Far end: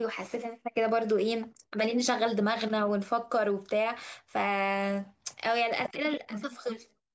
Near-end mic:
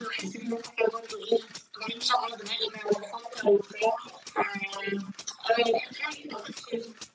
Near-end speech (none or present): none